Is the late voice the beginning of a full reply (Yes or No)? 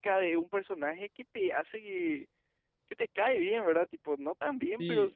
No